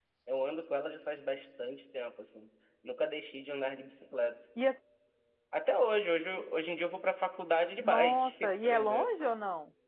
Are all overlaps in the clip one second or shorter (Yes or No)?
No